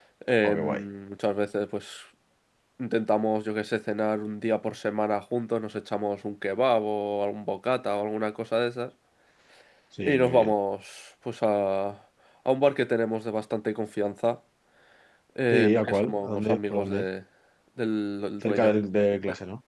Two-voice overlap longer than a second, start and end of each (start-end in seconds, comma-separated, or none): 15.5-17.1